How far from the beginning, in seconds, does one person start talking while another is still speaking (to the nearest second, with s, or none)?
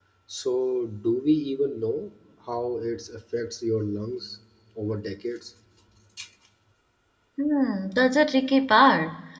none